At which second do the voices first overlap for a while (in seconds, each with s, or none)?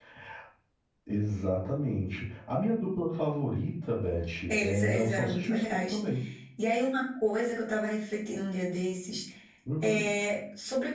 4.5 s